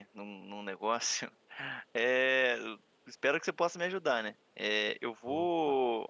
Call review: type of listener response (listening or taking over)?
listening